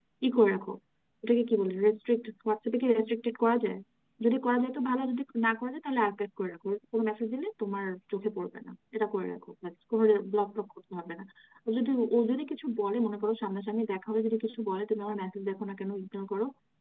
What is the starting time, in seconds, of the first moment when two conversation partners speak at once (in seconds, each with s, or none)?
none